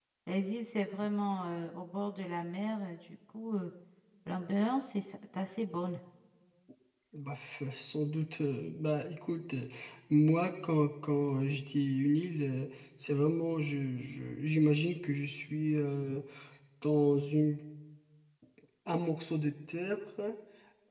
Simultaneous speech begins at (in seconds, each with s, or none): none